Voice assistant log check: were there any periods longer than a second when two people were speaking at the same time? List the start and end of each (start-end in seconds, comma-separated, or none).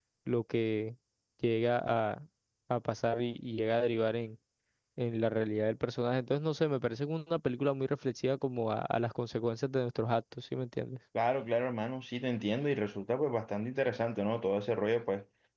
none